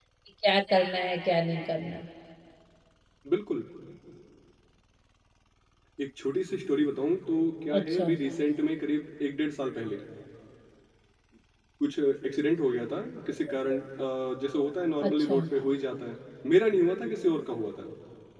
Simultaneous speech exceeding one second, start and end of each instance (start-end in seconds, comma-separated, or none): none